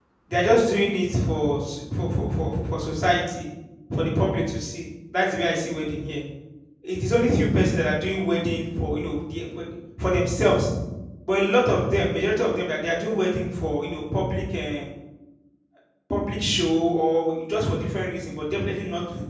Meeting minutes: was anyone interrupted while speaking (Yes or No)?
No